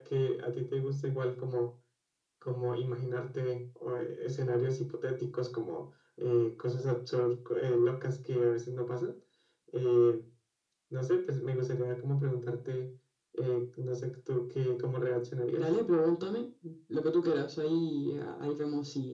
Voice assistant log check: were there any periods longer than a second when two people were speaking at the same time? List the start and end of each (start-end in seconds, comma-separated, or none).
none